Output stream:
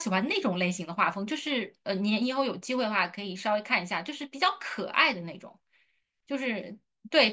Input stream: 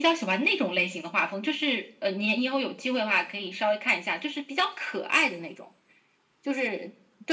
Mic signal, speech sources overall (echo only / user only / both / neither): echo only